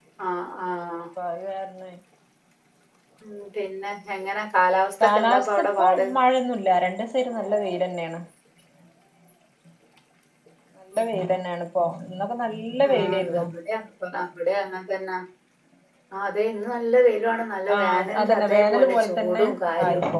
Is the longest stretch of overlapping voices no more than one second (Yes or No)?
No